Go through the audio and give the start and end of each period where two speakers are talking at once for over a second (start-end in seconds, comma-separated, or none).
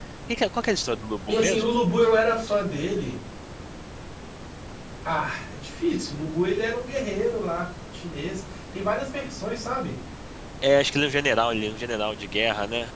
none